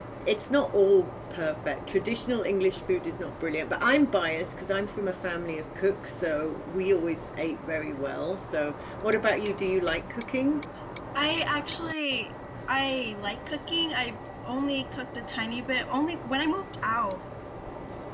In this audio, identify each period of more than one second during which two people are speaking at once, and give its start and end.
none

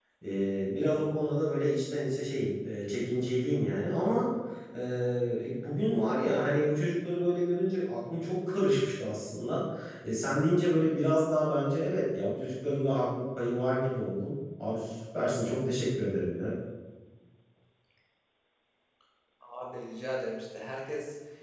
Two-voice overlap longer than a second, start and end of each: none

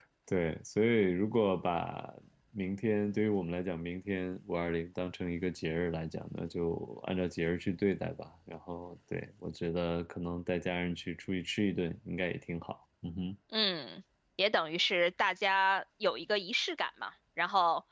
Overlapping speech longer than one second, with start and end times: none

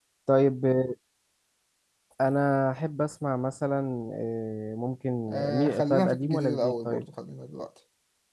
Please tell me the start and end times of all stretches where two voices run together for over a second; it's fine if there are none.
5.5-7.0

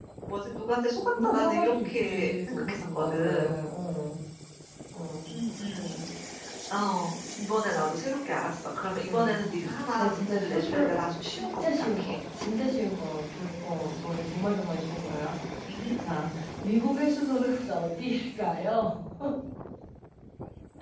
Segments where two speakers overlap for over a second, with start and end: 1.2-3.6, 10.0-12.2

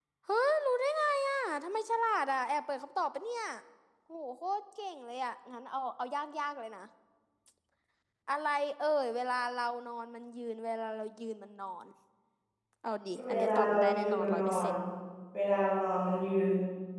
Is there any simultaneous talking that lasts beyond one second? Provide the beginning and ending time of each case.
13.3-14.7

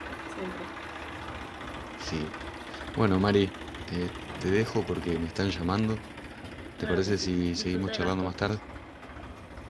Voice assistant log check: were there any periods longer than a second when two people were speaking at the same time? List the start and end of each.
6.8-8.5

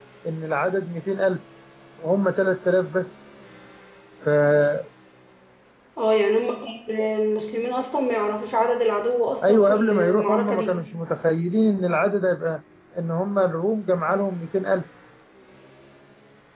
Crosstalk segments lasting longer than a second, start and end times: 9.4-10.8

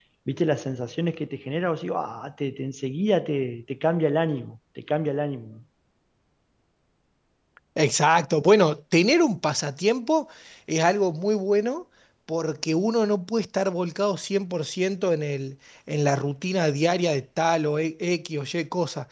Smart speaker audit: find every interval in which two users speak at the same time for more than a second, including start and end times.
none

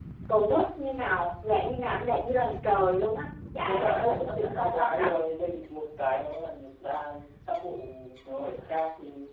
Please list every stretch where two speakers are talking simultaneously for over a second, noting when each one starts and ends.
3.6-5.1

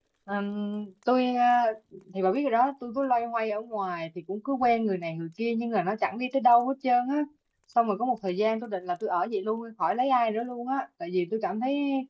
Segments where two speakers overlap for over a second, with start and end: none

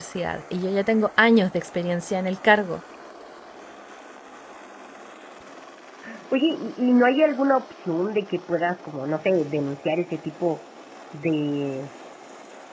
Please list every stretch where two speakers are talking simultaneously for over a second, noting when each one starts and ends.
none

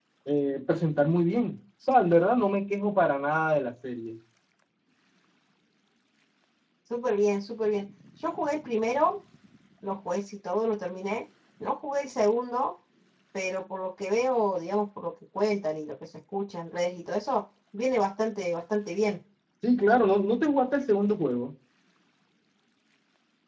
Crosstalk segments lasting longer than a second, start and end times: none

